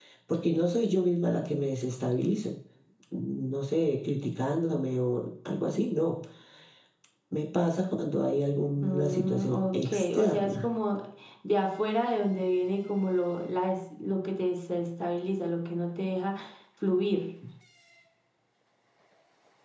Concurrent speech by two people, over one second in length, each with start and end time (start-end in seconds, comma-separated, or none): 8.8-10.7